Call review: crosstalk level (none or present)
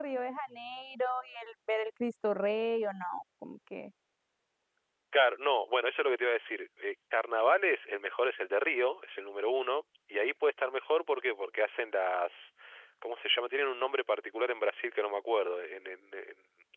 none